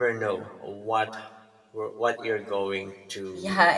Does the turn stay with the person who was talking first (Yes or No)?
No